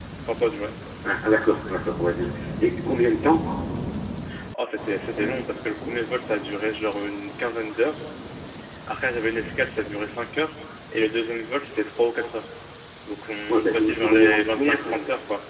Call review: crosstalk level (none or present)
present